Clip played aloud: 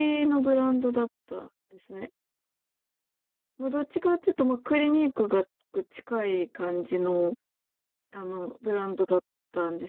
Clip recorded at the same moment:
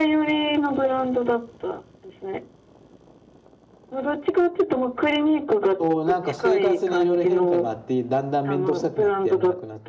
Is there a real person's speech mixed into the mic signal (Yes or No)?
Yes